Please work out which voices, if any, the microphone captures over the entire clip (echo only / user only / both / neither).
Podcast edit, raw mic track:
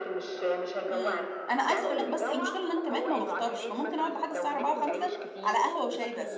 both